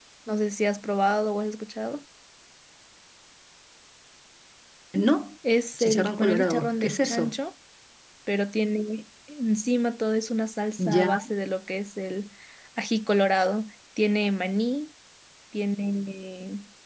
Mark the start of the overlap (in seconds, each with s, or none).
5.8 s